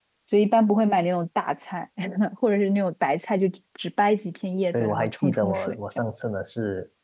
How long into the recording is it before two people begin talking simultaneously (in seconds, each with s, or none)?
4.7 s